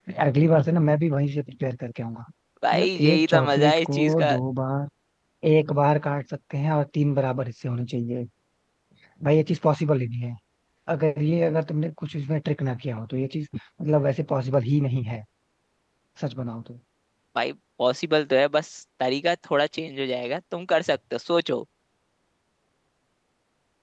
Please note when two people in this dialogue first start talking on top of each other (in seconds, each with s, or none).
2.7 s